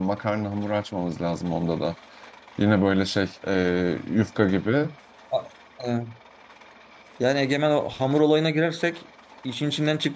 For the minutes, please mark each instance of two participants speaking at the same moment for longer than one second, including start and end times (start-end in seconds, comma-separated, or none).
none